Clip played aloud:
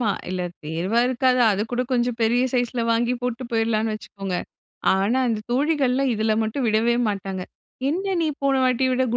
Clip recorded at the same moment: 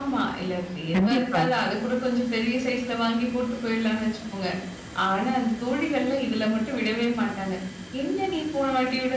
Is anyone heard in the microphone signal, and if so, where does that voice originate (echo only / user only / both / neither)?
both